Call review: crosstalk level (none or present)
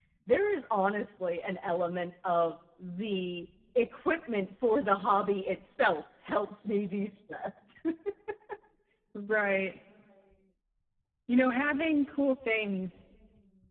none